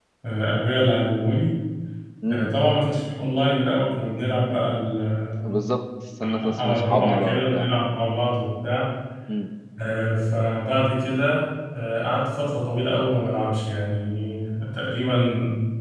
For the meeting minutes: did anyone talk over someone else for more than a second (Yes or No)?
Yes